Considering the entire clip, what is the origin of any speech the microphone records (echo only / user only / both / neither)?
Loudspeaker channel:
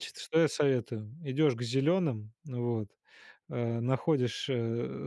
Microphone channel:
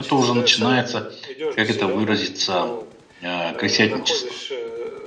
both